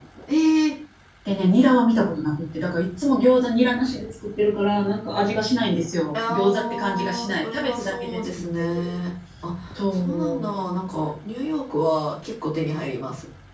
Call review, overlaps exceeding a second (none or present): present